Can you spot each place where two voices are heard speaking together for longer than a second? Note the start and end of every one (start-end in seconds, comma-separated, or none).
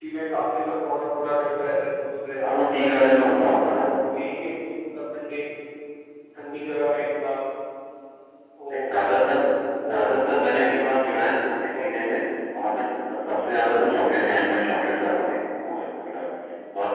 2.4-3.8, 9.9-12.0